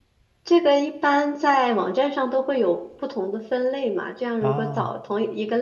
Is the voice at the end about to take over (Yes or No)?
No